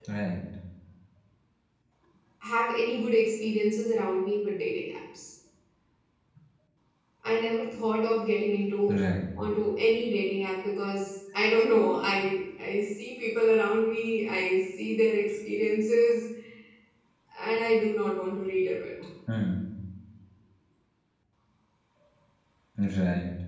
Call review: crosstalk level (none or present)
none